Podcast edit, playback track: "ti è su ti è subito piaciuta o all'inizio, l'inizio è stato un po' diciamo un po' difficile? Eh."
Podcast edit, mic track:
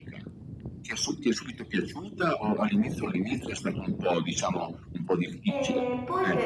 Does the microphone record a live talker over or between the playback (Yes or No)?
Yes